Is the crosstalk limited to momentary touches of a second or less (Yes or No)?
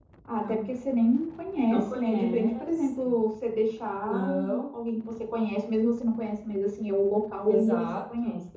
No